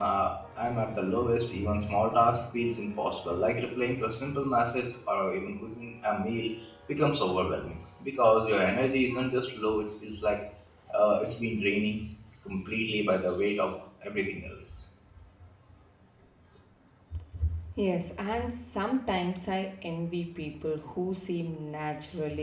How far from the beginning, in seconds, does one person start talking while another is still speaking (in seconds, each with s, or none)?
none